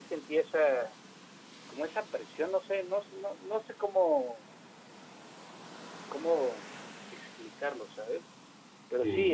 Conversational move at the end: listening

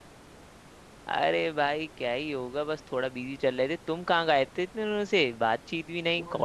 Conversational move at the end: taking over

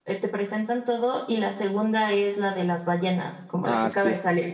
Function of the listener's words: taking over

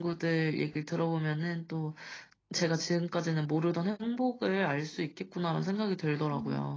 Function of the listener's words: taking over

